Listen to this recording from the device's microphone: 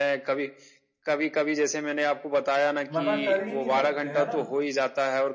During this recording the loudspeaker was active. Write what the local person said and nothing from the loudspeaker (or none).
मना कर ही नहीं सकते, है ना?